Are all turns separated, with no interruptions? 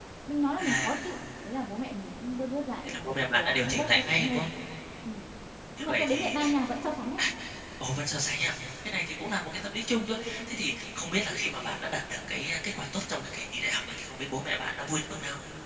No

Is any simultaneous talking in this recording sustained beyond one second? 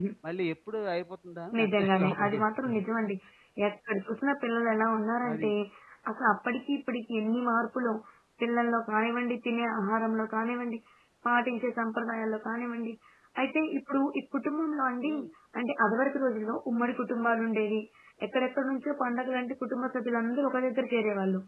Yes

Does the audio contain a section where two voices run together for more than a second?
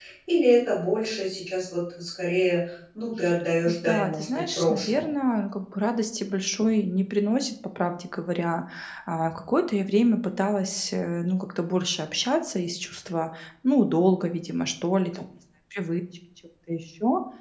Yes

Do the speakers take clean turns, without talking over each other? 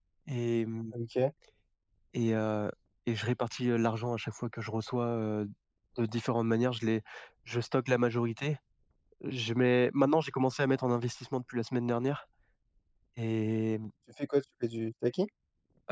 Yes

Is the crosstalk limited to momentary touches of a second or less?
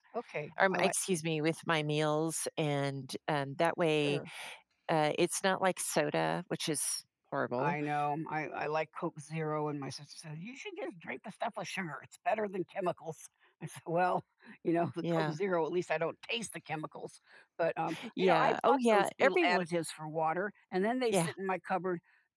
No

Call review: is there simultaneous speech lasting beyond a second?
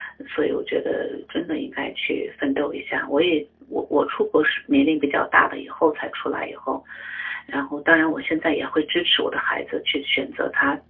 No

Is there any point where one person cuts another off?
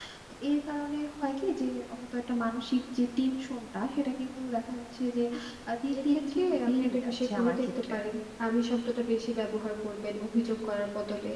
Yes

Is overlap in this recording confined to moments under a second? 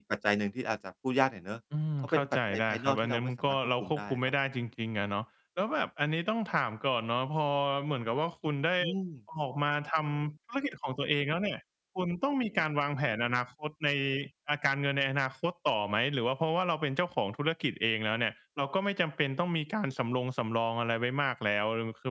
No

